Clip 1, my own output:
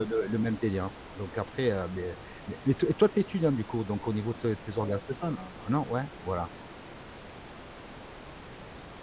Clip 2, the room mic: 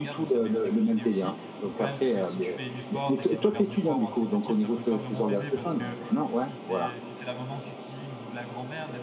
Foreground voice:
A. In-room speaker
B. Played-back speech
B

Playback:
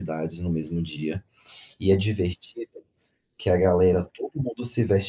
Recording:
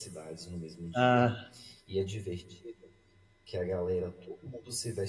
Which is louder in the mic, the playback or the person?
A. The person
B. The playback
A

